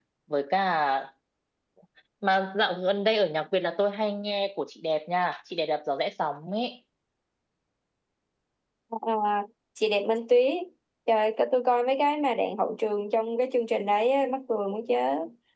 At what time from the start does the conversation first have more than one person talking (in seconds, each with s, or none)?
none